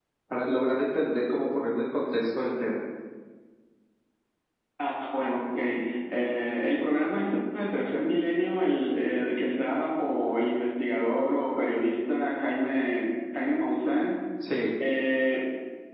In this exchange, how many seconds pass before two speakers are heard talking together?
none

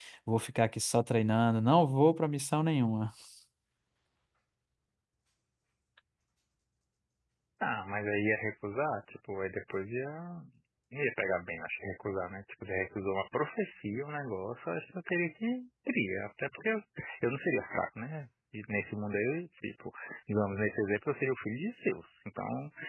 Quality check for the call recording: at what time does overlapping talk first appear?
none

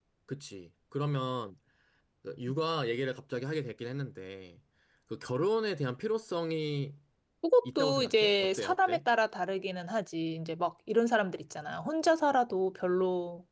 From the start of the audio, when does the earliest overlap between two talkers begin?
7.6 s

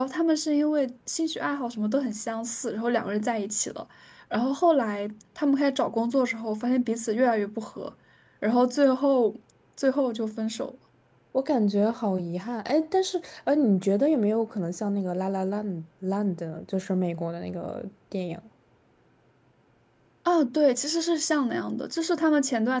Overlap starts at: none

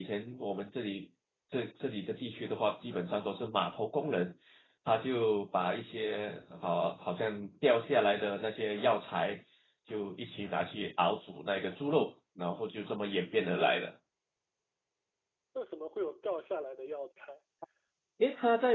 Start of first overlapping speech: none

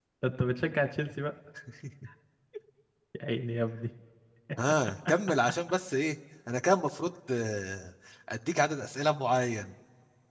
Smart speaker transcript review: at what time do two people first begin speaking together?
none

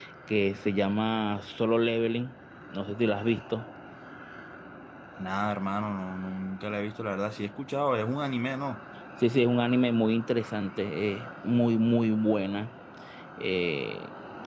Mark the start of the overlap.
none

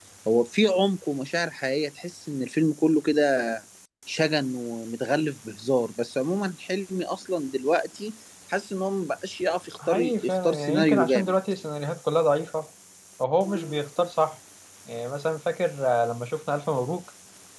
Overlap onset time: 9.8 s

